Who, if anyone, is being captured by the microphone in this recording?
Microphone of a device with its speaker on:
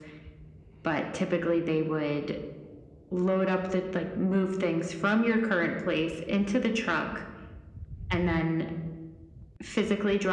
echo only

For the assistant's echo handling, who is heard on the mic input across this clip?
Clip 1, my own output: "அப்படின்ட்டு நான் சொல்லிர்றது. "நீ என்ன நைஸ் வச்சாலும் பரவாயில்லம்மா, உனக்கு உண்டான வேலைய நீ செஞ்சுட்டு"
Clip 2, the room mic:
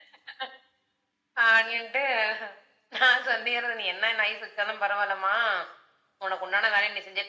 echo only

